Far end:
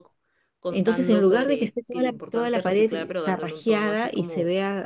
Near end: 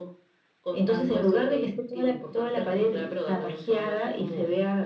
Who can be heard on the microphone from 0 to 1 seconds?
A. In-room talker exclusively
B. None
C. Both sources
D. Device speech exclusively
D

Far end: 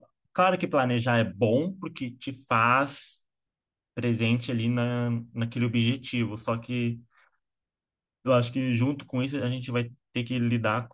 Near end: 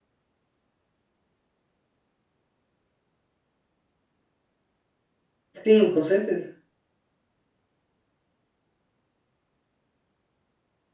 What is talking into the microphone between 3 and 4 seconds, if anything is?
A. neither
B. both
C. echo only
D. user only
A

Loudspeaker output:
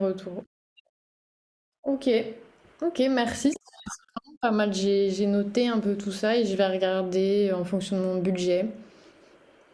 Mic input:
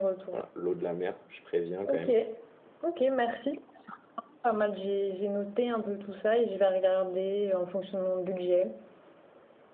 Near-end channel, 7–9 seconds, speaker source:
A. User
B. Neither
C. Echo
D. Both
C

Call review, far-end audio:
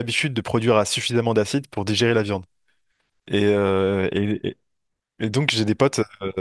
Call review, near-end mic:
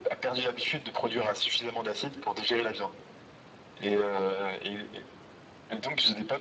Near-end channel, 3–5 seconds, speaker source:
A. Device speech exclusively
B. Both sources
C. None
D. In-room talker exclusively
A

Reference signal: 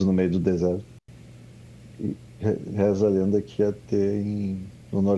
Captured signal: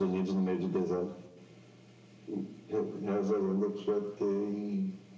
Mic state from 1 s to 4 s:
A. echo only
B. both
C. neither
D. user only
A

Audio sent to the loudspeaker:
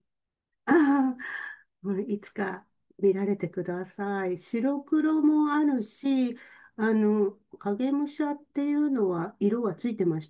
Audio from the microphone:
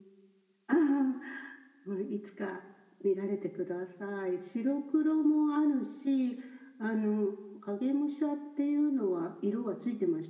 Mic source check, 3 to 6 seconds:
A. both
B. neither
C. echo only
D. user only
C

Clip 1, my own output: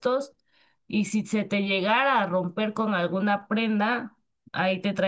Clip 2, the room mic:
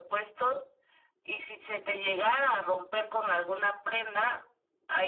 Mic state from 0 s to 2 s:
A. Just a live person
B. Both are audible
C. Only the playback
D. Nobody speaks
C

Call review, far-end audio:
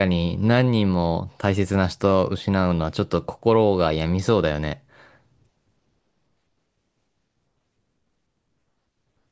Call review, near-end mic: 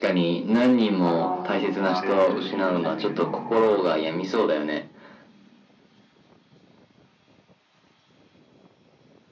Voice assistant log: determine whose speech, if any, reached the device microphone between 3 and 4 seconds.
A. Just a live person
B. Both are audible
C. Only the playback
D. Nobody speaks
B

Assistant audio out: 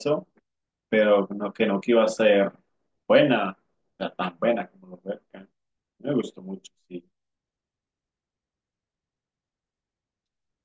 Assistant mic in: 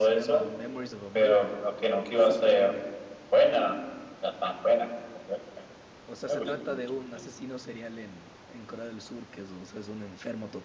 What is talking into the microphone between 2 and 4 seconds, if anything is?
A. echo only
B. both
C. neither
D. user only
B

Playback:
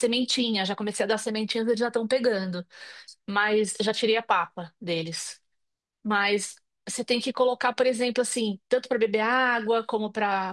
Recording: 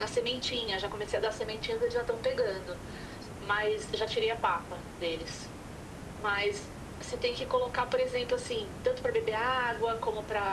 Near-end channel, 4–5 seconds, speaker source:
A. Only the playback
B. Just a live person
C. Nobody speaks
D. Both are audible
A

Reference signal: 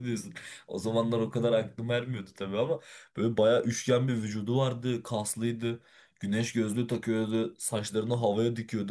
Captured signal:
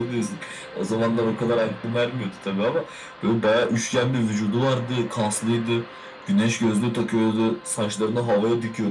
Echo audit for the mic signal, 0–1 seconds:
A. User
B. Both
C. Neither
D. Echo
D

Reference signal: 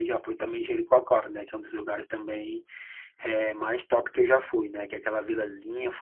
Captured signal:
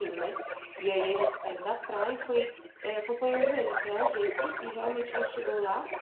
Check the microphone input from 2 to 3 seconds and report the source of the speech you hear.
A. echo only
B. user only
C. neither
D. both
D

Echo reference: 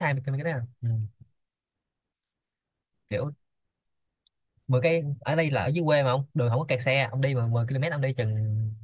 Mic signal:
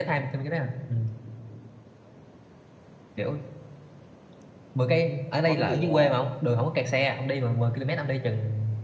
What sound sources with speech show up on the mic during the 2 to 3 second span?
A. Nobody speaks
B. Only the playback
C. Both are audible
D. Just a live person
A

